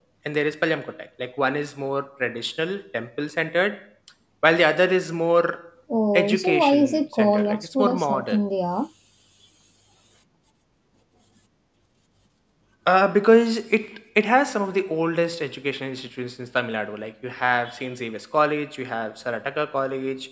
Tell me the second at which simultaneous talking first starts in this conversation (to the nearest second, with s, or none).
6 s